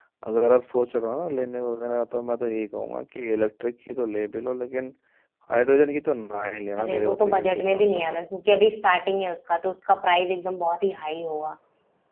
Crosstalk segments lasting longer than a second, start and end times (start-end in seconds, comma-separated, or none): 6.8-8.2